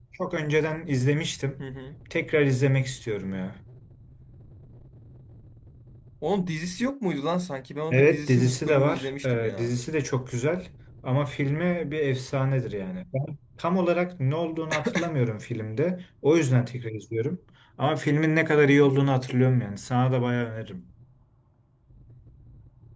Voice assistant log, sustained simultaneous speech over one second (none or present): present